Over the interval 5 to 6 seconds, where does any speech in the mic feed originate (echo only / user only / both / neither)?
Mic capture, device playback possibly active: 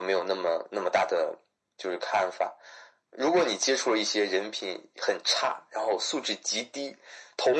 echo only